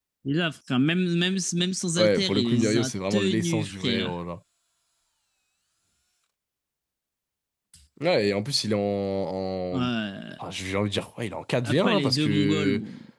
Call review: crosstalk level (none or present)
present